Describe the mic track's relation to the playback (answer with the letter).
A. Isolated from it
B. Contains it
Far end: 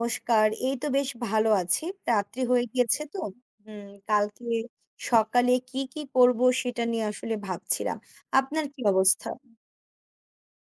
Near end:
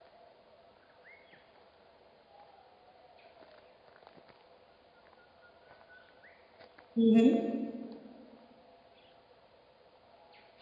A